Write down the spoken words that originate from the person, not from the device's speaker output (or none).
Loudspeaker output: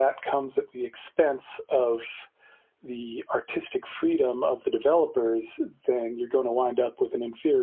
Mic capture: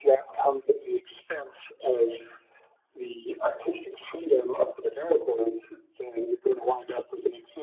none